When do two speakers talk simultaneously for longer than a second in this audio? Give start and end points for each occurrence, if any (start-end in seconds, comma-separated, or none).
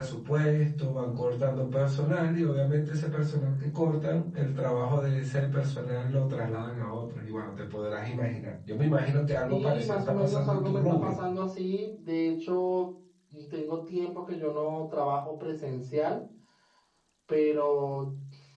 9.5-11.2